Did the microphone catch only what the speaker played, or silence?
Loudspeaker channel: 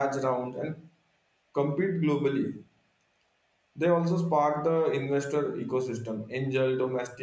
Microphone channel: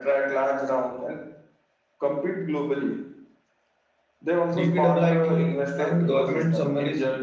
No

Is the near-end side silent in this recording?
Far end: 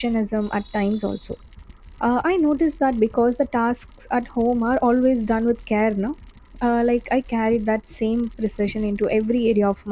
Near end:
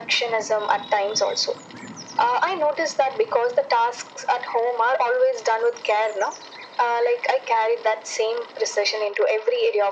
Yes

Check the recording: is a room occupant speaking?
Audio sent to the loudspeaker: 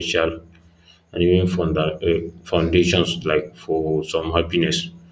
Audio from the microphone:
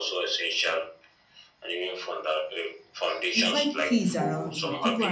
Yes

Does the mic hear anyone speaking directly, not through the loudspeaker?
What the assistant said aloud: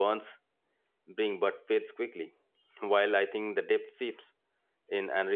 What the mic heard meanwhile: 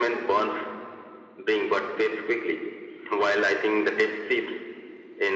No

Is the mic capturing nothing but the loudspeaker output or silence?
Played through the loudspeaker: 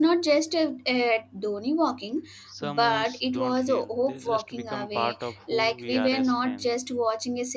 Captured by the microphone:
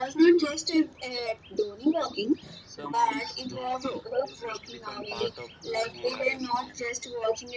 Yes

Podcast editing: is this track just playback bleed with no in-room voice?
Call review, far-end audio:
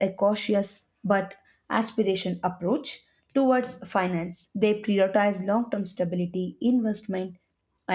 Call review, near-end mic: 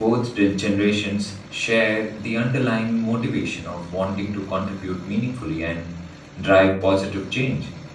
No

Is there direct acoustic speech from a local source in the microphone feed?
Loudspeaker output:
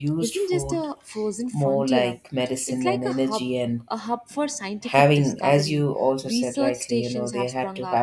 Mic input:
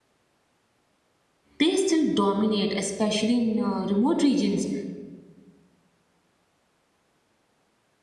Yes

